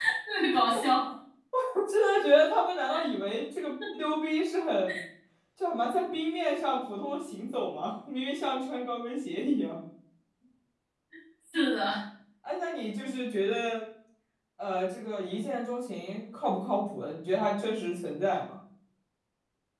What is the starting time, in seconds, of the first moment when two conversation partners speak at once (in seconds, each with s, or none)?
none